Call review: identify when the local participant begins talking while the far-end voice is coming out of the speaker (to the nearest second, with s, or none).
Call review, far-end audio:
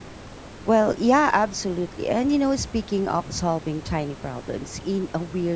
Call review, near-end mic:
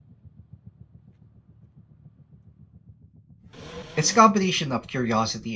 4 s